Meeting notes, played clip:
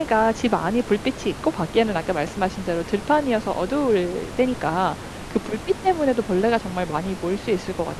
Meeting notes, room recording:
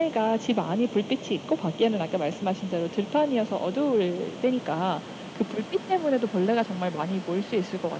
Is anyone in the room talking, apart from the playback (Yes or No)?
No